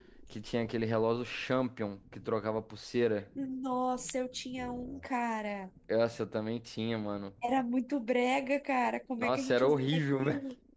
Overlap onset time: 9.2 s

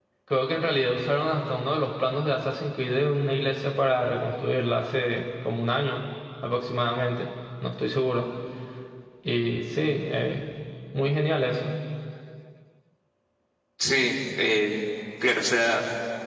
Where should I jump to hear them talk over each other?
none

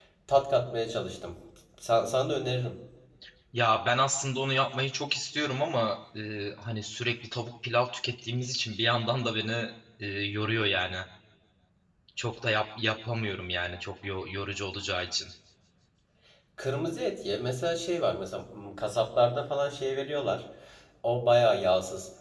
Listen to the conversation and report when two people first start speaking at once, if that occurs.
none

